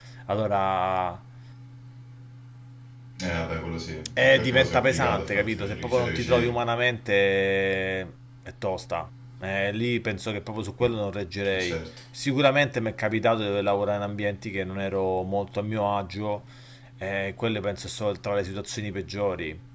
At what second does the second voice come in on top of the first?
4 s

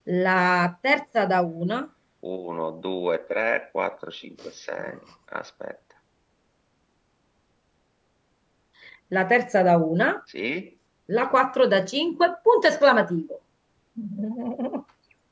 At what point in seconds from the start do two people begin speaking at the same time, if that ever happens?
none

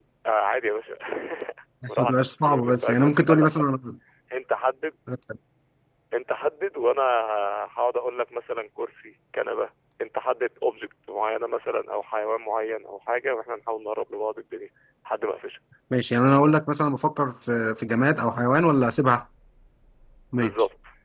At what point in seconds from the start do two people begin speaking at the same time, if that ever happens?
2 s

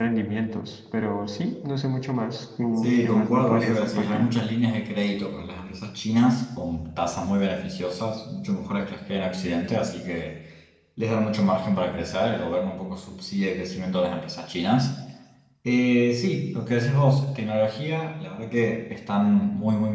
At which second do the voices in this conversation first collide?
3 s

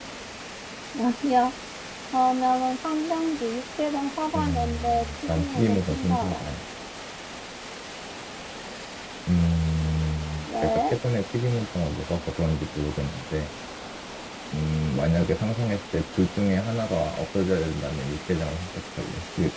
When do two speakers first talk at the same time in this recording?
4 s

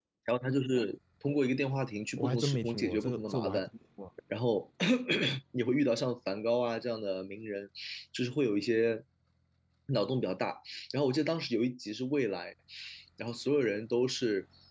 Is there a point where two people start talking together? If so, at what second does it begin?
2 s

